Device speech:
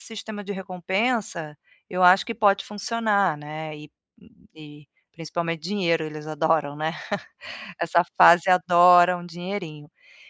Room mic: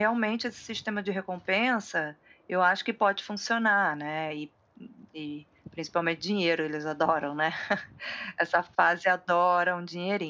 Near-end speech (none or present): none